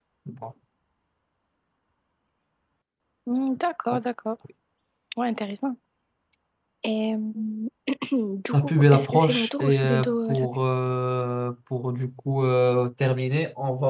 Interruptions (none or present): present